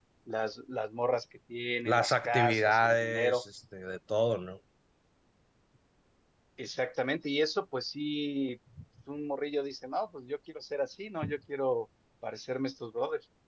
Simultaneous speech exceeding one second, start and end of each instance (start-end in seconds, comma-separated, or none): 1.9-3.4